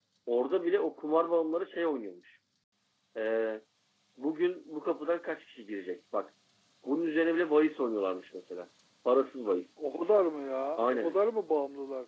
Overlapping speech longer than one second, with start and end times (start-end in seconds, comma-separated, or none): none